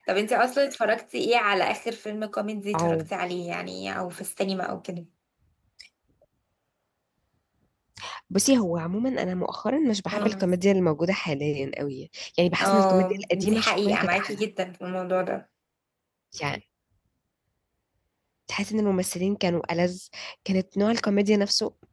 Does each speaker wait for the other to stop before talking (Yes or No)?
No